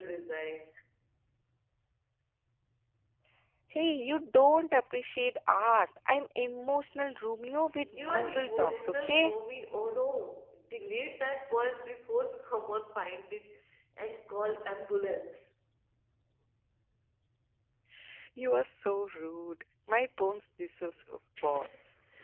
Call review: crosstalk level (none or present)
present